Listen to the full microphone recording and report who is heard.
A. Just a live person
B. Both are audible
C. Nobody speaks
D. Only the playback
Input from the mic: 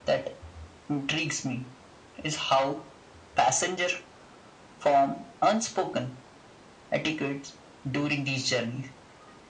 D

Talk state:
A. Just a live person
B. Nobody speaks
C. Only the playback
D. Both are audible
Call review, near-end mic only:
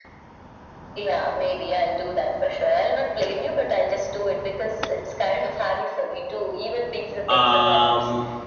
D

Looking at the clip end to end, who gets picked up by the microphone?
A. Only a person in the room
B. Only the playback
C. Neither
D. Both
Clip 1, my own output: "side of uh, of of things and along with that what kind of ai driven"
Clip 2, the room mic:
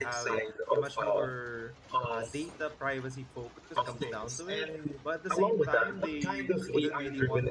D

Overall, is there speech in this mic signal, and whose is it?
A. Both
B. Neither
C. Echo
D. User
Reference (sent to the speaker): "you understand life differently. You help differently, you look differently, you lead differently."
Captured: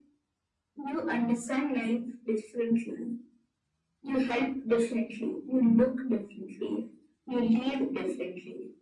C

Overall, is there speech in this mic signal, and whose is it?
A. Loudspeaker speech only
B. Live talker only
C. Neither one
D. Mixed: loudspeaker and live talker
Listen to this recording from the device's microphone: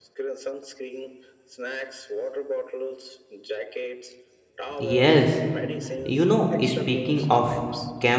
D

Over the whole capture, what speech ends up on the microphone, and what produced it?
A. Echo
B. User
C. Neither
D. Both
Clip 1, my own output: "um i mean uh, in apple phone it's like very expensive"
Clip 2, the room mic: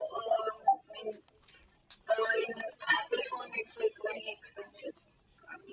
A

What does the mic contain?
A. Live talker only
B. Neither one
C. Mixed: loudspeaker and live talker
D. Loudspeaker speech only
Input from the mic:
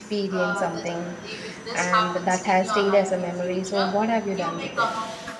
C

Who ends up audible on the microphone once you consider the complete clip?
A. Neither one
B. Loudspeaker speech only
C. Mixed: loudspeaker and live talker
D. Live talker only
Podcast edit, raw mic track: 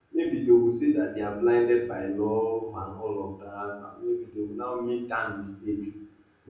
D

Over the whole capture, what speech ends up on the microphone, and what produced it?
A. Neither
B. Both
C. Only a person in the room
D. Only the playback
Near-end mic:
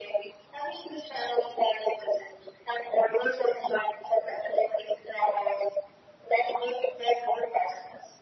D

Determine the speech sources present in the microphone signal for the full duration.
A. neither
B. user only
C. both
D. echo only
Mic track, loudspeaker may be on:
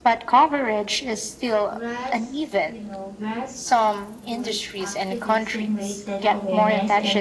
C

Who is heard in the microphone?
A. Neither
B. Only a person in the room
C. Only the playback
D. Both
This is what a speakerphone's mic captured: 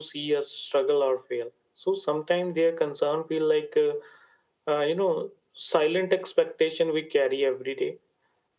C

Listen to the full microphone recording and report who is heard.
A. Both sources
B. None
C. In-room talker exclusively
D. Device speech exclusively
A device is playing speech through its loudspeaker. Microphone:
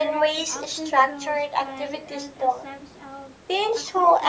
A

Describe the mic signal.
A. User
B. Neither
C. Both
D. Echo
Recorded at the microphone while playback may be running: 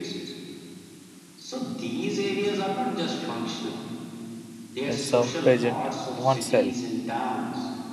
C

